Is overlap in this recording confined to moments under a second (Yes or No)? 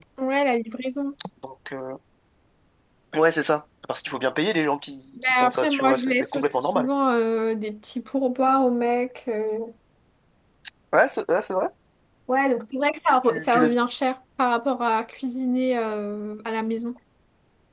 No